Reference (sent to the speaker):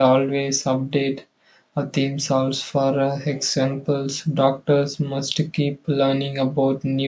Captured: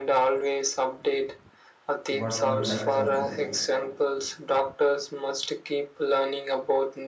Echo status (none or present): present